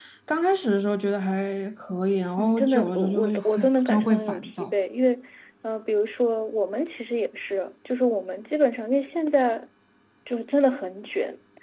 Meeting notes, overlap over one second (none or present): present